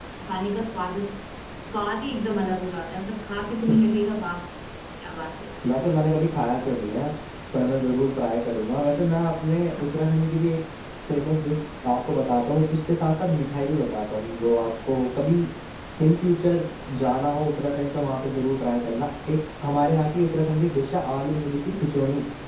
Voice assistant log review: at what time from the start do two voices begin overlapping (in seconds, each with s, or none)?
none